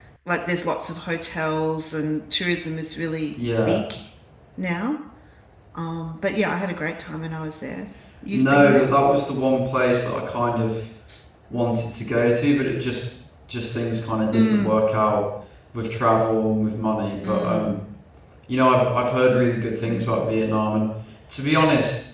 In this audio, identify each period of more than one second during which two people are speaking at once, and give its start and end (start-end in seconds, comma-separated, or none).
none